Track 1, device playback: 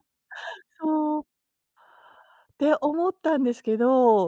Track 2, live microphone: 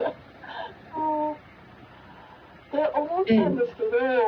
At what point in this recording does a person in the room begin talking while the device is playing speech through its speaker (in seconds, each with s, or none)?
3.2 s